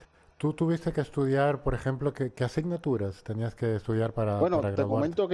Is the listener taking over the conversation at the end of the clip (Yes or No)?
Yes